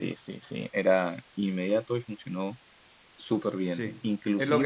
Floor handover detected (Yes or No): Yes